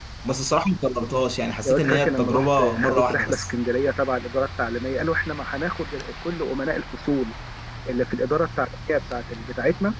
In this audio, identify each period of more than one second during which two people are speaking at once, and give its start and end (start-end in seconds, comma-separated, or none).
1.6-3.5